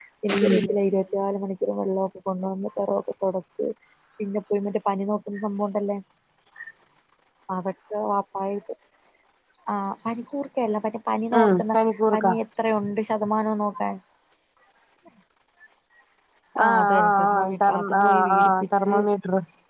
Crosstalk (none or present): present